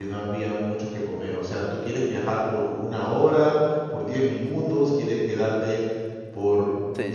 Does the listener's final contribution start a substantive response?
Yes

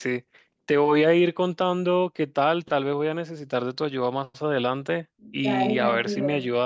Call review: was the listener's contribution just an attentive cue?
Yes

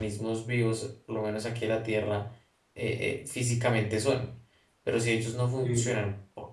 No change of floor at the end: Yes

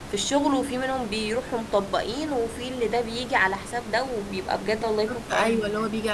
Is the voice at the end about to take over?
Yes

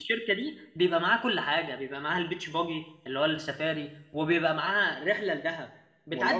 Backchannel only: Yes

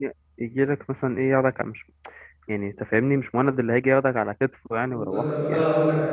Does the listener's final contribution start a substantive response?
Yes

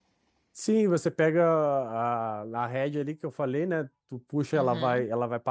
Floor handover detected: No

